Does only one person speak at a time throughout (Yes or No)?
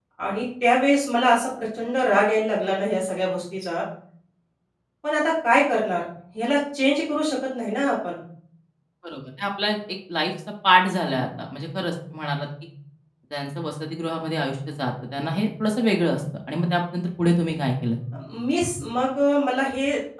Yes